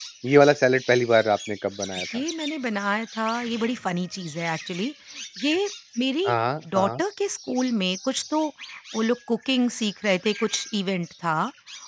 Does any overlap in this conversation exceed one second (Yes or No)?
No